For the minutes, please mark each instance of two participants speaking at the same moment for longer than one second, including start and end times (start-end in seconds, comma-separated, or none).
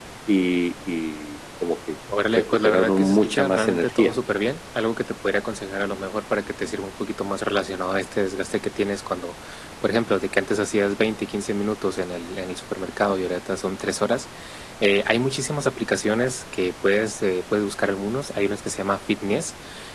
2.3-4.2